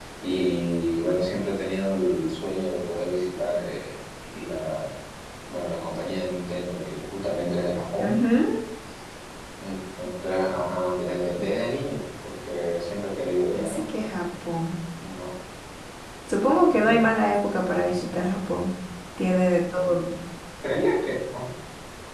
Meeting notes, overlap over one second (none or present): none